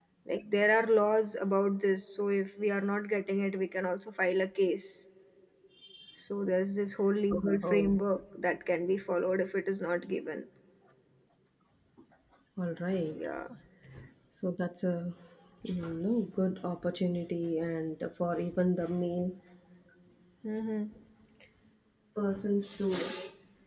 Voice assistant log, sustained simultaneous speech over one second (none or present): none